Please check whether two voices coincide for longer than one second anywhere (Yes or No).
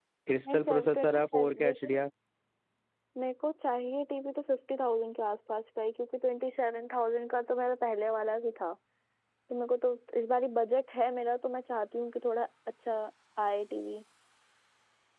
Yes